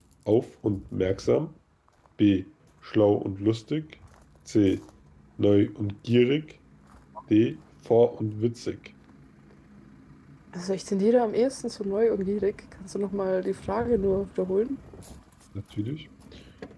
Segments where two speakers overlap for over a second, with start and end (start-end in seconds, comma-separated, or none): none